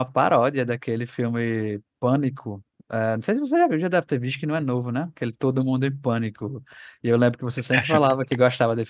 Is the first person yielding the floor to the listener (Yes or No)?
No